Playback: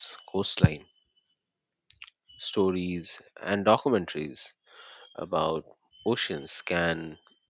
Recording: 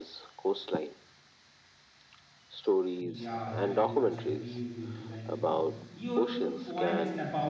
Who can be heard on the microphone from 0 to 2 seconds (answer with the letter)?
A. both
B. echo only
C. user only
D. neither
B